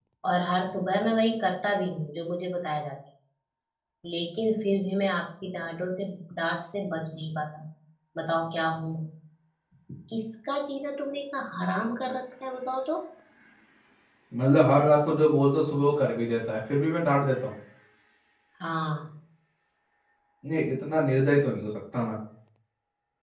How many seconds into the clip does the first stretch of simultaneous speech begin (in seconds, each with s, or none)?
none